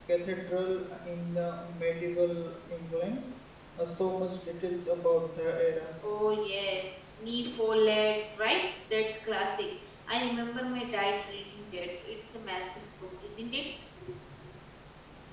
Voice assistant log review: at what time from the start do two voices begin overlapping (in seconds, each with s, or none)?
none